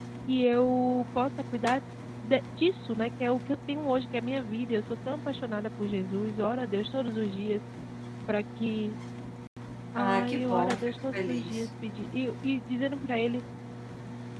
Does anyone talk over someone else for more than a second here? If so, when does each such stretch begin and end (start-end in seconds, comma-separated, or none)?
9.9-11.7